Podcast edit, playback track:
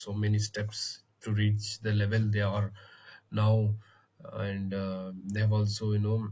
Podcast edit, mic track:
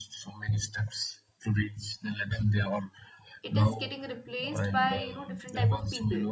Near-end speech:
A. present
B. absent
A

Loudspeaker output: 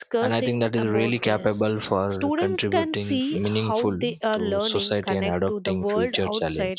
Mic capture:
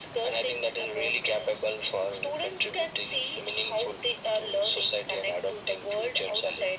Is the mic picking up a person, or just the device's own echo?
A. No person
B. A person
A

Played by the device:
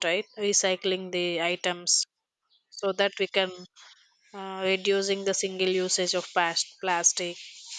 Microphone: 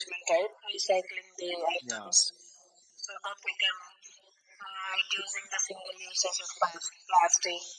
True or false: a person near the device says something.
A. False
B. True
B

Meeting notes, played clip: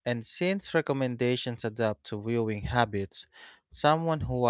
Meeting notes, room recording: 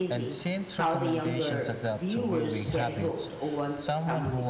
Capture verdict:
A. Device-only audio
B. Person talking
B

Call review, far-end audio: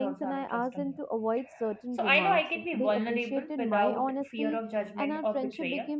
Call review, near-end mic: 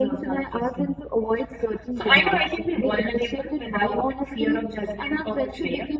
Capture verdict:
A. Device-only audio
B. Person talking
A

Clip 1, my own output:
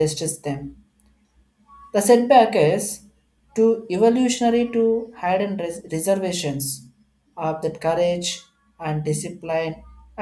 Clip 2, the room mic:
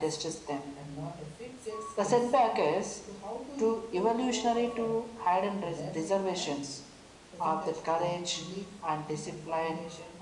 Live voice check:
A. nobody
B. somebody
B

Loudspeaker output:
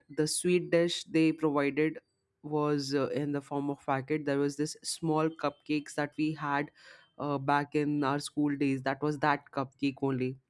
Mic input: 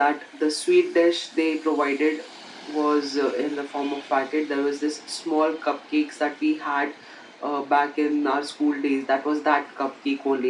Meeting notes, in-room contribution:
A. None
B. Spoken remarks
A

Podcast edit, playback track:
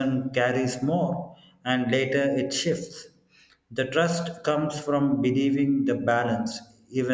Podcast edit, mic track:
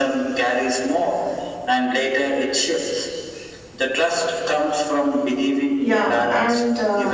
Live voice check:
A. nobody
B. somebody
B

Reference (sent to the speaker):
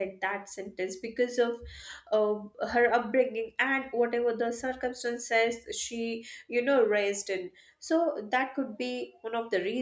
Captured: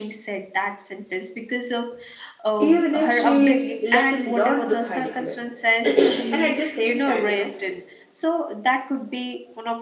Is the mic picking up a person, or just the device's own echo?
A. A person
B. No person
A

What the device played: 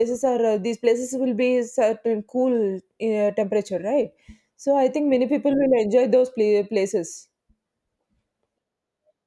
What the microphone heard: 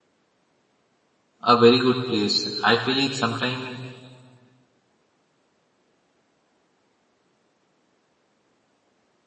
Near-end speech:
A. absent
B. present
B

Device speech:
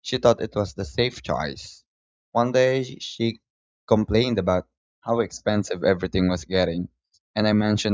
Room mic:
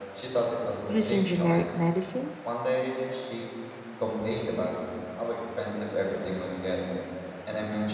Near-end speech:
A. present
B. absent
A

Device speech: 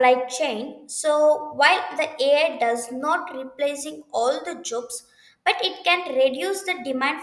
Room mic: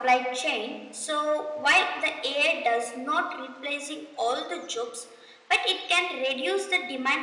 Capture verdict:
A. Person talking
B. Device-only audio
B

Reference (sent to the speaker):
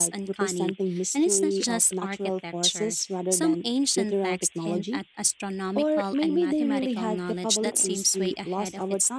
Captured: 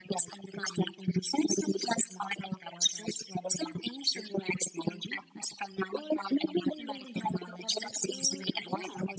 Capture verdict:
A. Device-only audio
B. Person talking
B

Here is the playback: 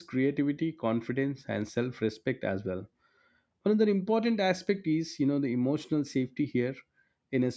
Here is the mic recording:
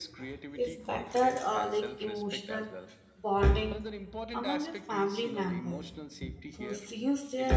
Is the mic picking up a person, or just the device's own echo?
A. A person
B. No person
A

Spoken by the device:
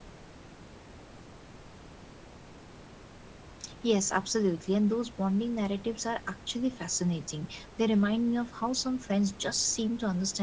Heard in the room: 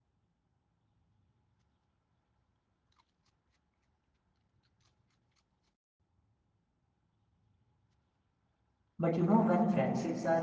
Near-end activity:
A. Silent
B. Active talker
B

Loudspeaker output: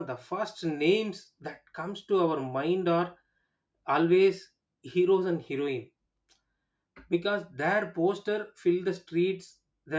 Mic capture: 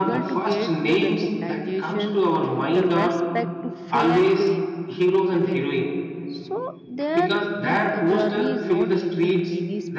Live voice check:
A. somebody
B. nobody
A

